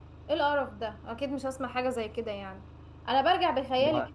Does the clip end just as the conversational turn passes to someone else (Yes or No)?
No